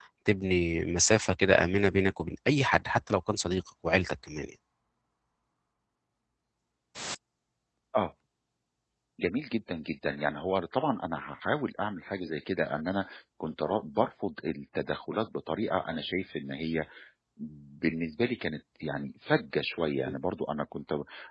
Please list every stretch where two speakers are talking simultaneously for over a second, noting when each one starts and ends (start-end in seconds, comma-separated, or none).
none